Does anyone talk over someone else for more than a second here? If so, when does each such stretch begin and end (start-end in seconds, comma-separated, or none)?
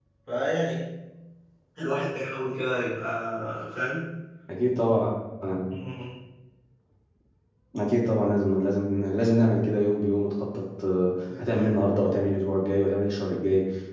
none